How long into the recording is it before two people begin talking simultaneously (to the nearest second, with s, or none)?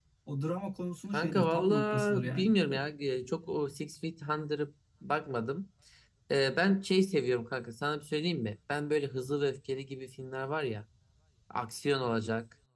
1 s